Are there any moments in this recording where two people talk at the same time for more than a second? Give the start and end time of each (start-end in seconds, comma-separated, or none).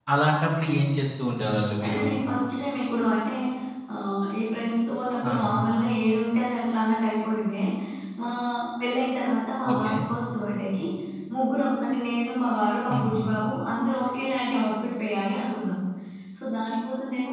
none